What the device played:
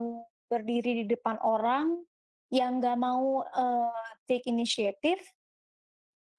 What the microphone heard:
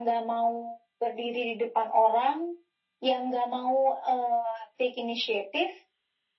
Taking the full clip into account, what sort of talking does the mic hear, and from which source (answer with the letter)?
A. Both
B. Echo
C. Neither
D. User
B